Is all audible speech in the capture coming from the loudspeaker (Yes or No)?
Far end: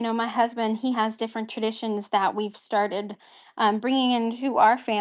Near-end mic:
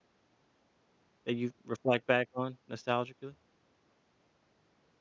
No